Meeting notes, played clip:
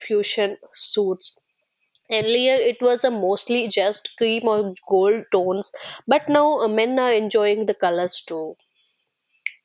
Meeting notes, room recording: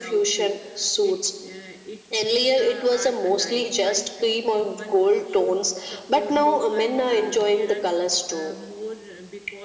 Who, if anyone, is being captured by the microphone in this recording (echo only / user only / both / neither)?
both